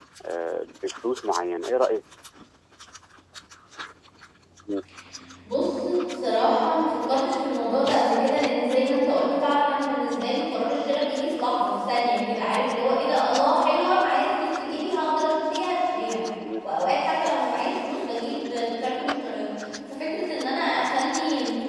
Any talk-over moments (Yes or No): No